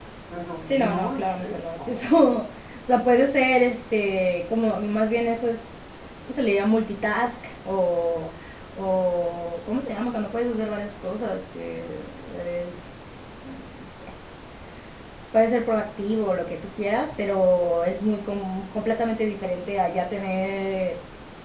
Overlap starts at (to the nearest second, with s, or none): 1 s